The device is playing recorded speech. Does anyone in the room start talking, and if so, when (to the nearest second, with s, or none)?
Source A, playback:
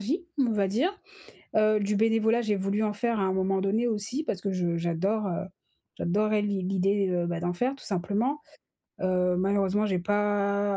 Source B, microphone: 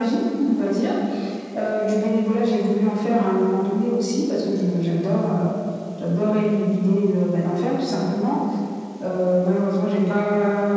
none